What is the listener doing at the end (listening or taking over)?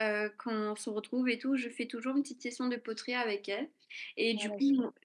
listening